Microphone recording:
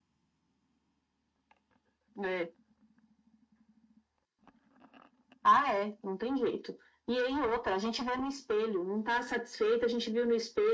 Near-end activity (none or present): none